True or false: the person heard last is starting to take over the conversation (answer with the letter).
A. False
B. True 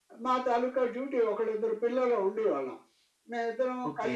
B